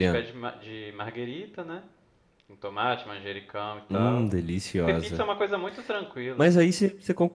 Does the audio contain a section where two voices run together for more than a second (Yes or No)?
No